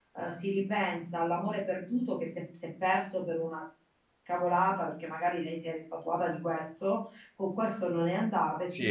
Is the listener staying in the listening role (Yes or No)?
Yes